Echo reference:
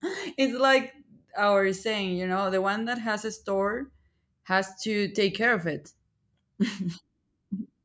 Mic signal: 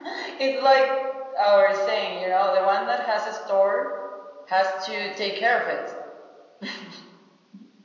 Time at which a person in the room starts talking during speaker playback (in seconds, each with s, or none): none